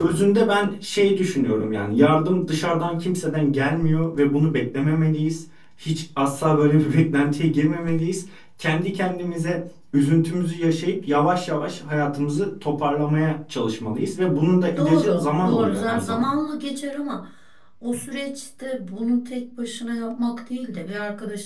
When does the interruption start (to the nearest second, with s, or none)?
15 s